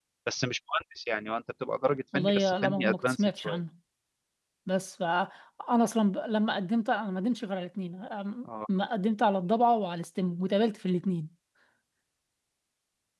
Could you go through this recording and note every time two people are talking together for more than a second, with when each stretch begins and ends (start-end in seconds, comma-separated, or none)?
2.1-3.6